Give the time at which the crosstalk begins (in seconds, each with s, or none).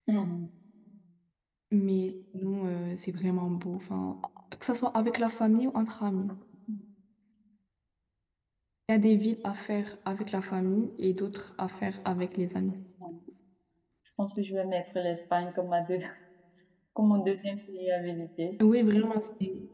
none